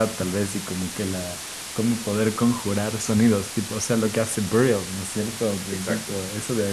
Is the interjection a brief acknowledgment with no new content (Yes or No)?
Yes